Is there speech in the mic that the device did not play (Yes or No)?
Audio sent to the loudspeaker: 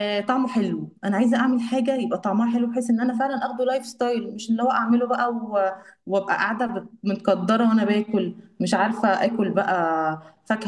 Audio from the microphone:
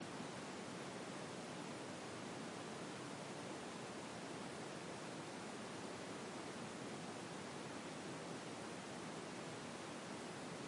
No